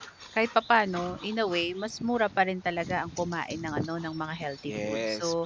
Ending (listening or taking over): taking over